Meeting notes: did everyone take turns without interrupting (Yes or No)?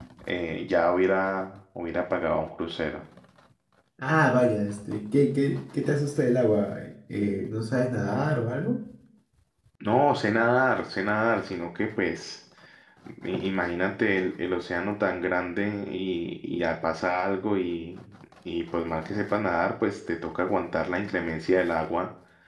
Yes